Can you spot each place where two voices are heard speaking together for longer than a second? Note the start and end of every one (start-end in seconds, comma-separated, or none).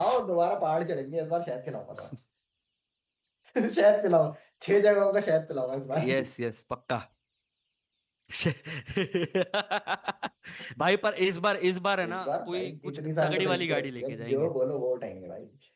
12.1-14.5